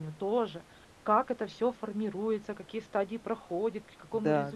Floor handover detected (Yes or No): No